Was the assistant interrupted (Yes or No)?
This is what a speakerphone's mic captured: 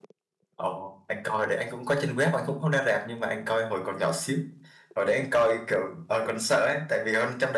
Yes